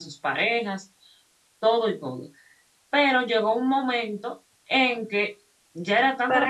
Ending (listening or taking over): taking over